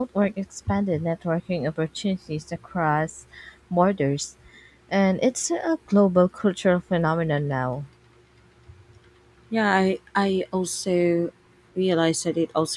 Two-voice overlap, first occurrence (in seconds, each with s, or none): none